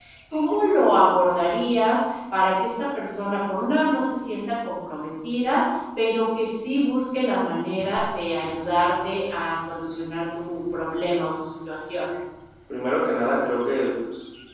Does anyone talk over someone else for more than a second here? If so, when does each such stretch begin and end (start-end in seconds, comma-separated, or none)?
none